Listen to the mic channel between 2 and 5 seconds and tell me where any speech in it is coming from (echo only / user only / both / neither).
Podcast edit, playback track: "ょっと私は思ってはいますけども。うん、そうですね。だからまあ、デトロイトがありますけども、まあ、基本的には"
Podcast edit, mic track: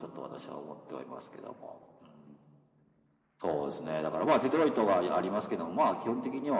echo only